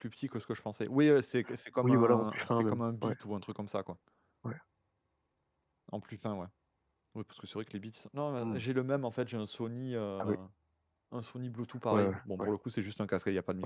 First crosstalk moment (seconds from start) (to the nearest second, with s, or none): 2 s